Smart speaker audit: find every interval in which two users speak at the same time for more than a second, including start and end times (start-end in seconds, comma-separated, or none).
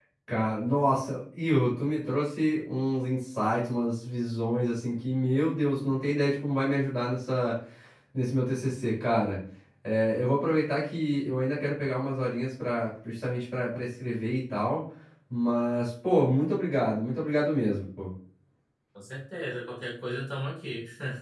none